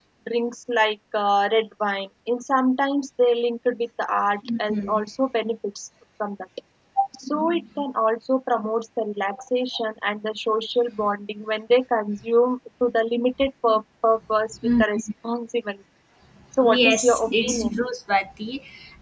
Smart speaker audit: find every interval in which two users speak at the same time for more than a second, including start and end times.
16.6-17.8

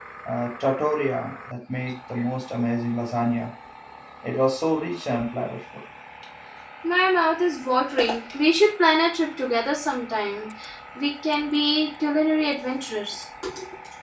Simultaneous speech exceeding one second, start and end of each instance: none

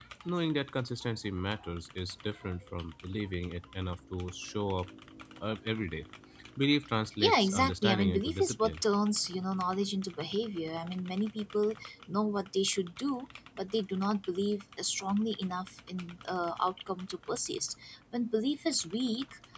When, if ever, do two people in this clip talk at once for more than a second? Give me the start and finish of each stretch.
7.2-8.7

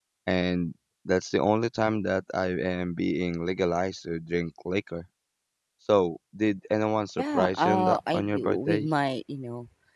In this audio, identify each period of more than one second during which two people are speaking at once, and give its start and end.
7.2-8.8

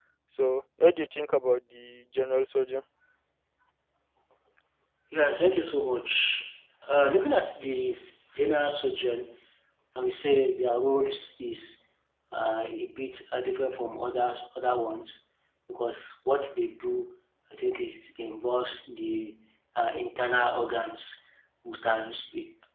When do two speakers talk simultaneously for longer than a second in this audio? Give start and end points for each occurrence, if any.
none

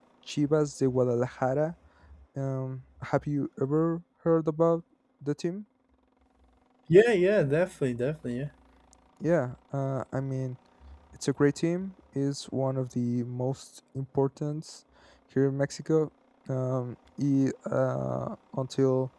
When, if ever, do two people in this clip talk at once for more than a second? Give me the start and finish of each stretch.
none

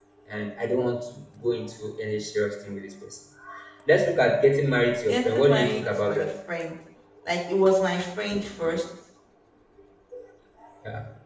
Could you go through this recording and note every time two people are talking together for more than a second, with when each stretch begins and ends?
5.1-6.3

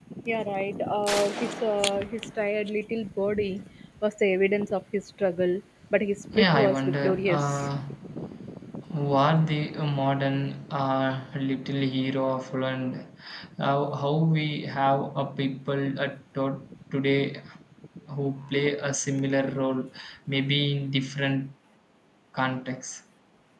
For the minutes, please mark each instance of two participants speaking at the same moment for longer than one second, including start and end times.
6.3-7.7

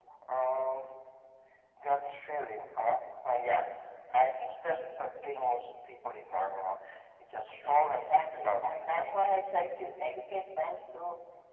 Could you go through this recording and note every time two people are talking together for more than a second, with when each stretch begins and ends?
7.6-9.3

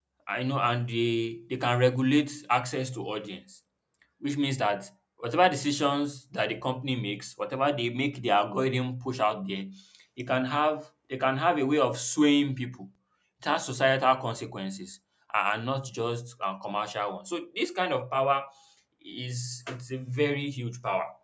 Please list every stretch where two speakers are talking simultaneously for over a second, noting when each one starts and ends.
none

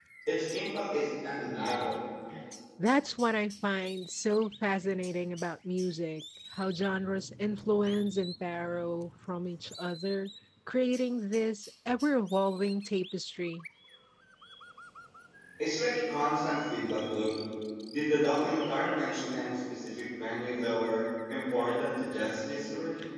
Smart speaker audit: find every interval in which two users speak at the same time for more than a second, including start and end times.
none

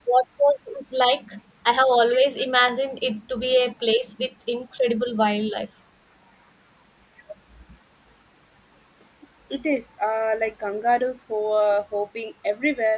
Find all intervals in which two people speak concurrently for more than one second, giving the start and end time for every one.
none

